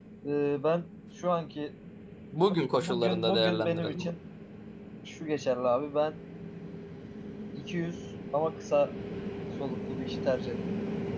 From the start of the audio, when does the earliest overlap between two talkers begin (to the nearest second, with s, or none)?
3 s